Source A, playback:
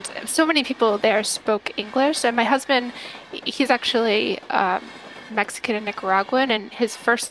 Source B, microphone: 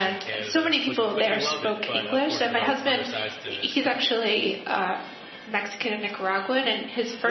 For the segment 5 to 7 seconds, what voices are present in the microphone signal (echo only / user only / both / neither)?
echo only